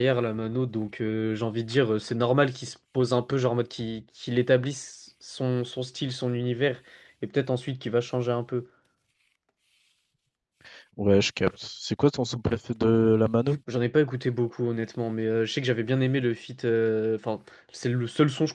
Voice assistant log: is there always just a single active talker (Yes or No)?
Yes